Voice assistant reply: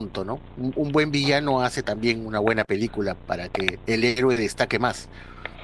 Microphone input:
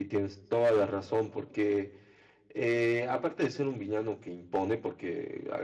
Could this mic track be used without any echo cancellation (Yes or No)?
Yes